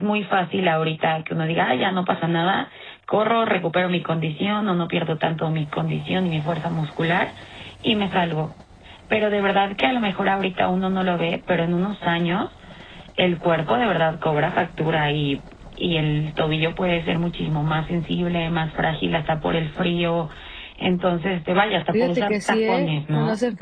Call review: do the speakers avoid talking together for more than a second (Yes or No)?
No